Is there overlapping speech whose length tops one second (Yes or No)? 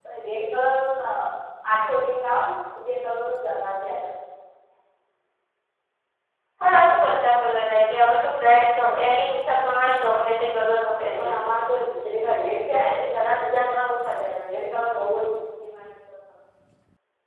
No